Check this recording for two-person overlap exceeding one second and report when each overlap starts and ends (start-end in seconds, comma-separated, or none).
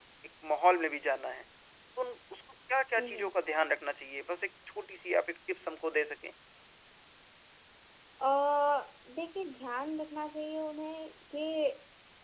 none